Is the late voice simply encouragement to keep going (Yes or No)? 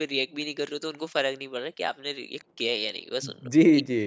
No